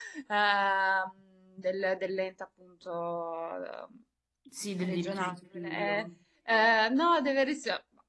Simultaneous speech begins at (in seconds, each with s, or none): 4.8 s